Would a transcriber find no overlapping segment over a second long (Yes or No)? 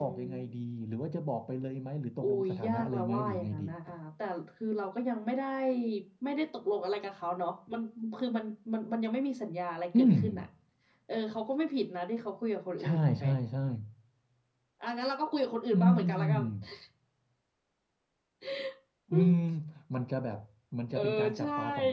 No